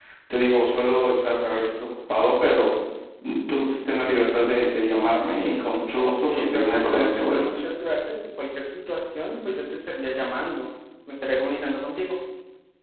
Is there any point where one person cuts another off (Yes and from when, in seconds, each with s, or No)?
Yes, from 6.0 s